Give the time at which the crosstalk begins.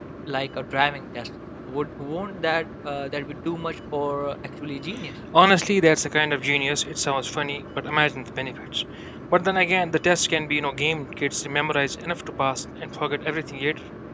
none

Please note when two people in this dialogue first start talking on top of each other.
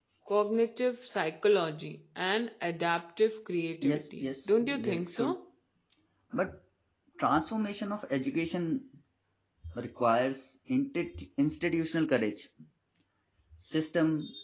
3.8 s

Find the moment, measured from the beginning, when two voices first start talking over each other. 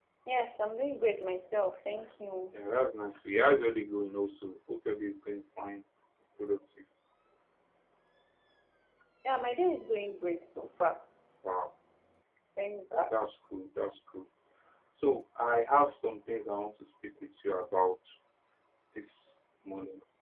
none

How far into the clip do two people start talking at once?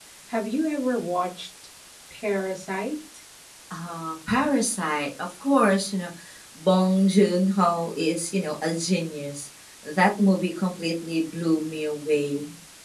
none

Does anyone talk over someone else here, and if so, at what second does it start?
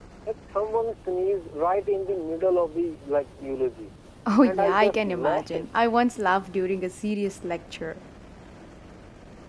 4.4 s

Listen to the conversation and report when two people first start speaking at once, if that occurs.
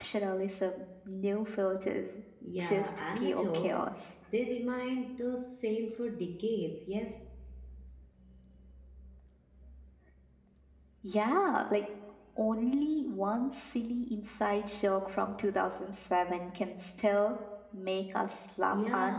2.6 s

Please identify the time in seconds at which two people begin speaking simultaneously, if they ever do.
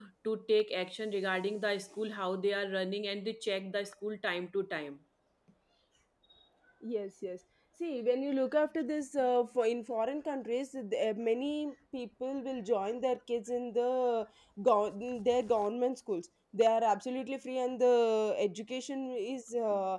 none

